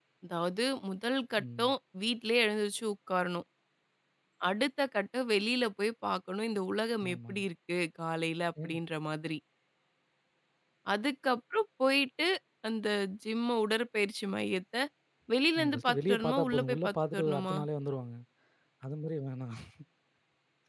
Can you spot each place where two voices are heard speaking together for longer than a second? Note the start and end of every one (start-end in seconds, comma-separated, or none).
15.6-17.6